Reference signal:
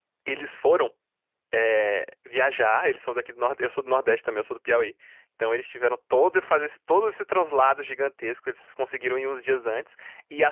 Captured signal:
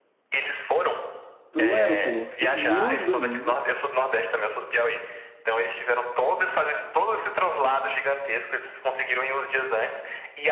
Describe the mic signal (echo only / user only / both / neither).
both